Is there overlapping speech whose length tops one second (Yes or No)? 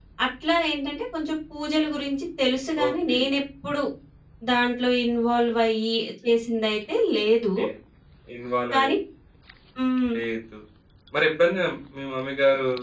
No